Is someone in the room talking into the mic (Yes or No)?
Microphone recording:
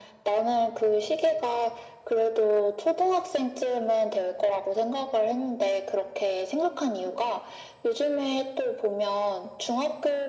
No